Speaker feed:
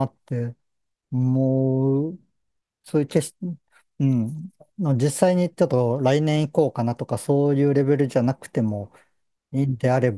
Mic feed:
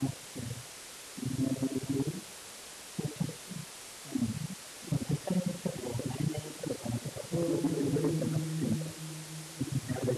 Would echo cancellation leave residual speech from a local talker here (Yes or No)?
Yes